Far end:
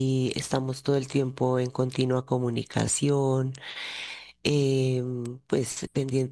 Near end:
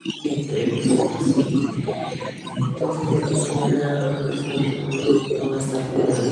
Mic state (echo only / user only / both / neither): both